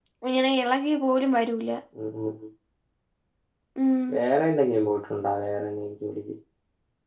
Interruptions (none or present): none